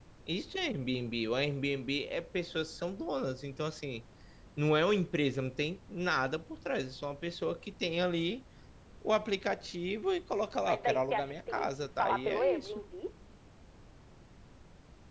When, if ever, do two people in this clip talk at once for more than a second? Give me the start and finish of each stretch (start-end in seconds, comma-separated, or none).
10.6-12.8